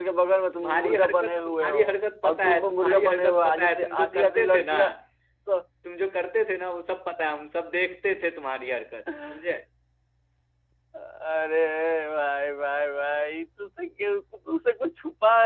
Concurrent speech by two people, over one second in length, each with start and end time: 0.5-1.8, 2.2-4.8

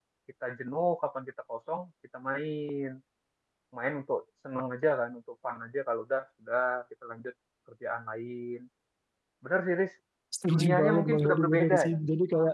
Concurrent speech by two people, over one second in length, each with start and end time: 10.5-12.0

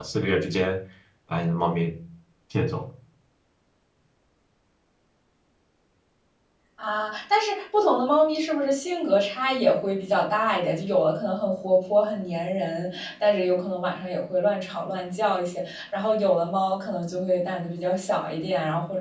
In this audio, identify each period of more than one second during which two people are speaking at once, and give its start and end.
none

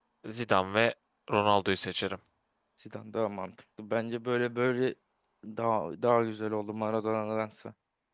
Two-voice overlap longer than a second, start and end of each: none

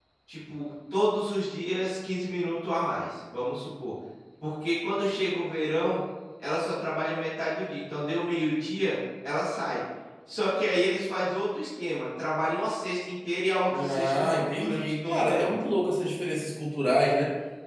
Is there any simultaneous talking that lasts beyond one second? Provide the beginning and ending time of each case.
13.8-15.5

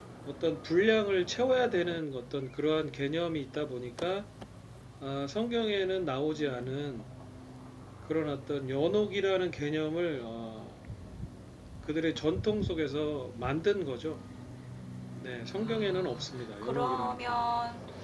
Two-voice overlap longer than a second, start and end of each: 15.6-17.5

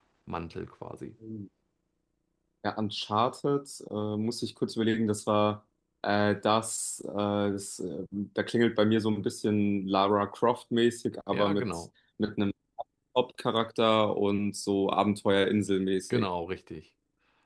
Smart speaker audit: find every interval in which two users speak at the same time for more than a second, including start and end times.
none

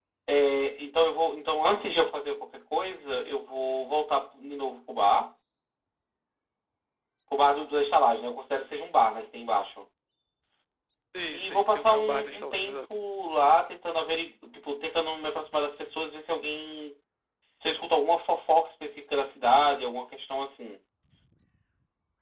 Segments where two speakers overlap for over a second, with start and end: 11.3-13.0

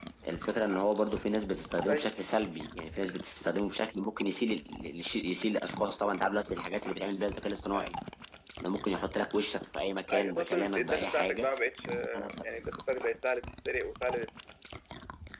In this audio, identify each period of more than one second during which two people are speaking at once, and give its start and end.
10.1-11.5

